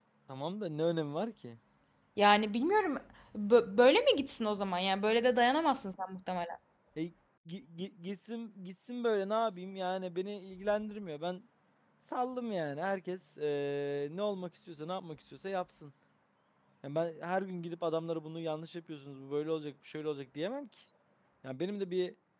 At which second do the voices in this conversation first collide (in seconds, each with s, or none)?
none